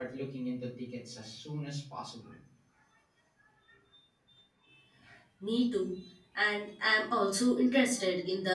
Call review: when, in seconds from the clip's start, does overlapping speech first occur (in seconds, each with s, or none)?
none